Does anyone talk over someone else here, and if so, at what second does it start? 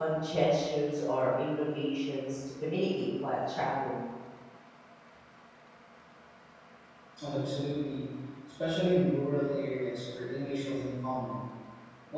none

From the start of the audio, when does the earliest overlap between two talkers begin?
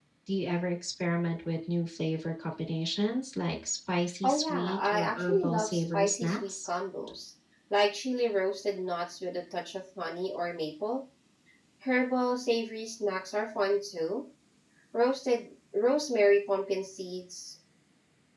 4.2 s

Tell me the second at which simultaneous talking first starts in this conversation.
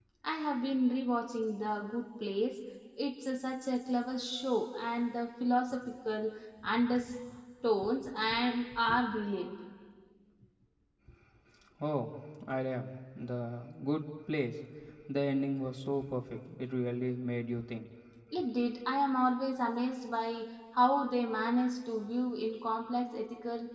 none

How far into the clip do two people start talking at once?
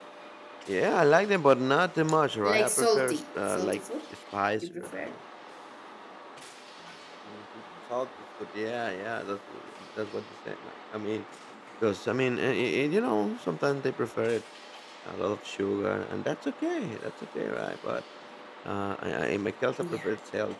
2.4 s

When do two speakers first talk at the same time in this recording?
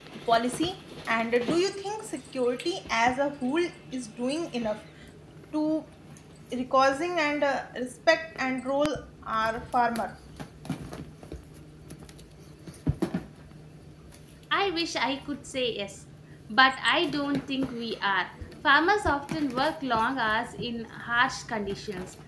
none

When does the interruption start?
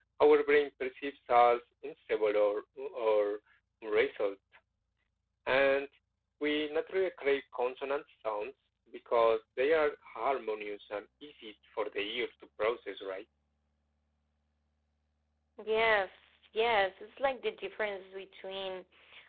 none

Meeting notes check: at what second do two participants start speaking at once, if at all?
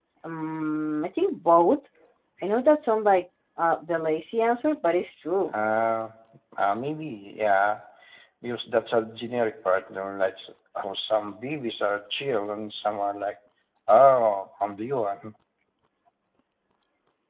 none

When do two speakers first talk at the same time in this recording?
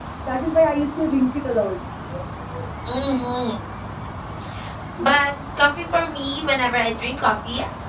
none

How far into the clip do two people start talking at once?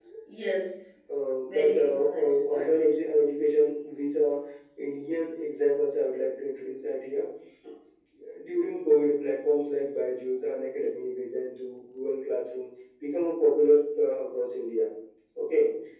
1.4 s

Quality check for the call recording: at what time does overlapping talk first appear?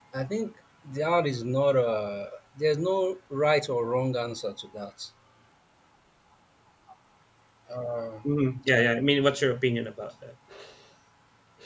none

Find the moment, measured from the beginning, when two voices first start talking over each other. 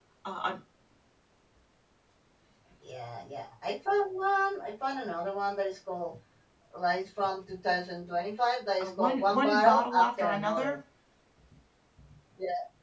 8.8 s

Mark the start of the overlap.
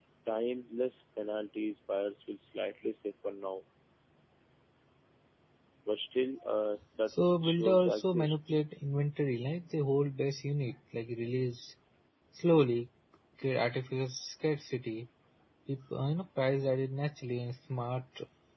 7.1 s

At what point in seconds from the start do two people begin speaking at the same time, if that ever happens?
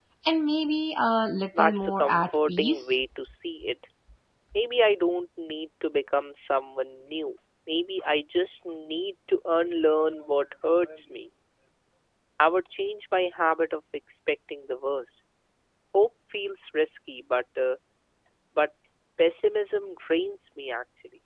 1.5 s

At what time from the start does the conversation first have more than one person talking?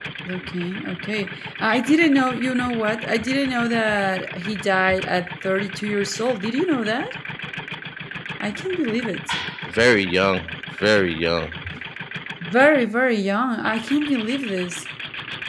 none

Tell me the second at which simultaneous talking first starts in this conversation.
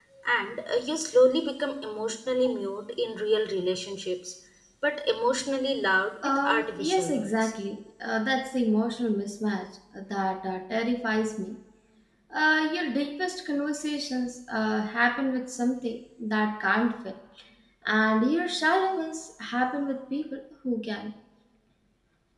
6.2 s

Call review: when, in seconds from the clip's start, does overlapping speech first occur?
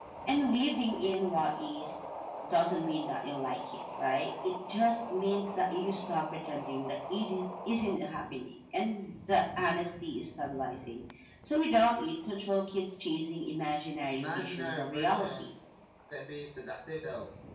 14.1 s

